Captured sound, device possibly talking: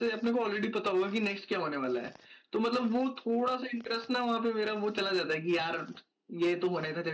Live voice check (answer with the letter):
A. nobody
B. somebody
A